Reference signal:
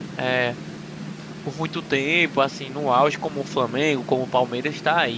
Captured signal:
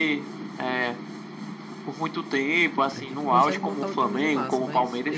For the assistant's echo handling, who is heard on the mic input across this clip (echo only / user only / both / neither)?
both